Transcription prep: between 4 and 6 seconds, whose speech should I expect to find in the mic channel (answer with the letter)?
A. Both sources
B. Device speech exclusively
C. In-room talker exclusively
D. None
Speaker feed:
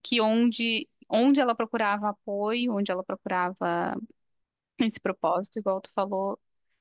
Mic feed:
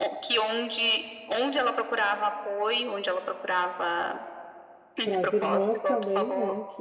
A